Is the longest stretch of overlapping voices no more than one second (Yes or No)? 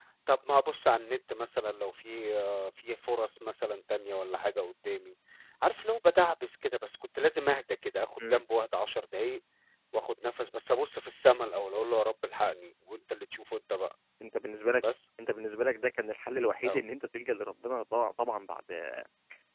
Yes